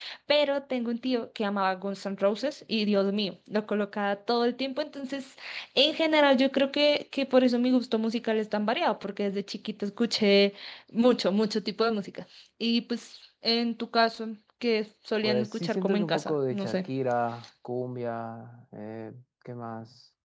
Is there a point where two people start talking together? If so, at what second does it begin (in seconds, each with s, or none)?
15.2 s